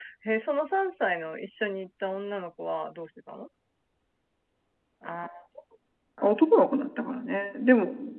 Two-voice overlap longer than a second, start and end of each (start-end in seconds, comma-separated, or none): none